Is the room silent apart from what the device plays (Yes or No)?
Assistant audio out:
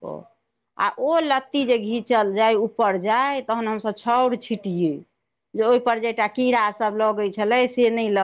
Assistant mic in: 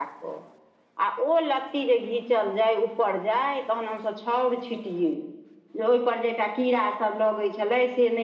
Yes